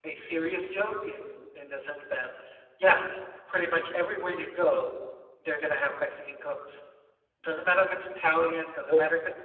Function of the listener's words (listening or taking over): listening